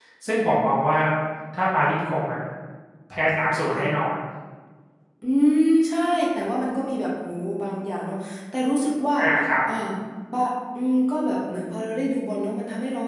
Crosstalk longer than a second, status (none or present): none